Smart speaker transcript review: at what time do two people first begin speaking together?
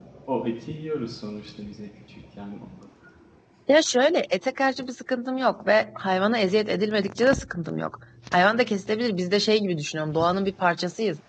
none

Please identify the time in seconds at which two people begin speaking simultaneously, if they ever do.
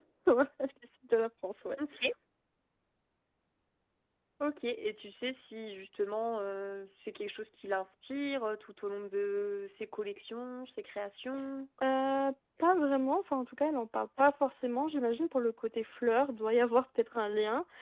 none

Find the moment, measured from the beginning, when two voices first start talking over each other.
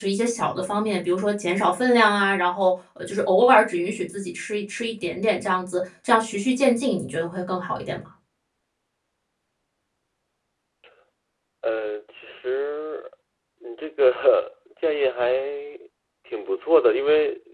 none

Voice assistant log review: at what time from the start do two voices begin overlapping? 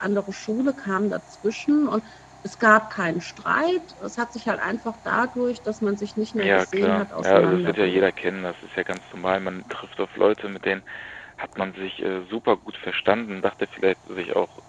6 s

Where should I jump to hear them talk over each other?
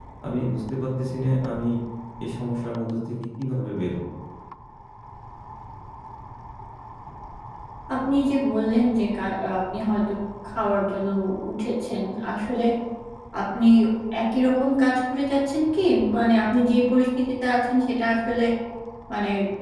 none

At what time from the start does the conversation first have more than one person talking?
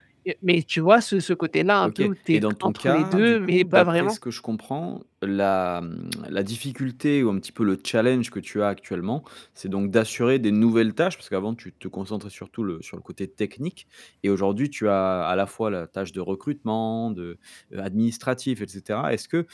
2 s

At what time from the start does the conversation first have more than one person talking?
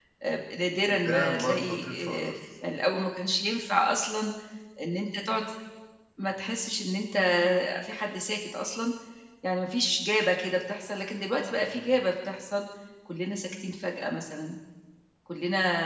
1 s

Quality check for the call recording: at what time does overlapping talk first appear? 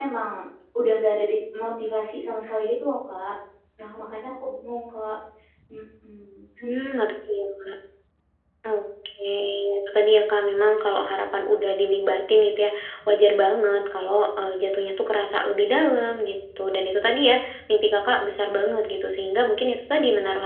none

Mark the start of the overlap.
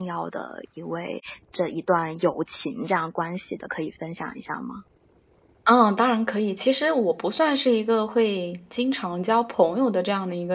none

